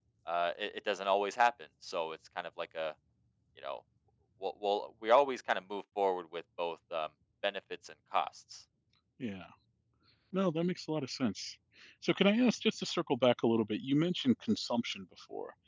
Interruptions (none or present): none